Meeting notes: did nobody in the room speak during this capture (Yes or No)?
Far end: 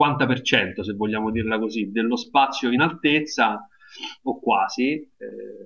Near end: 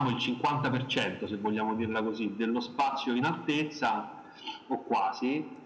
Yes